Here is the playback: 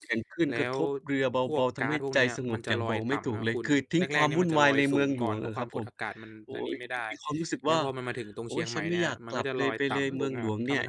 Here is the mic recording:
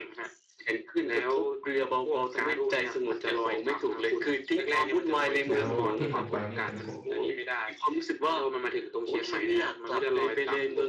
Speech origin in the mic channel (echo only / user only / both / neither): both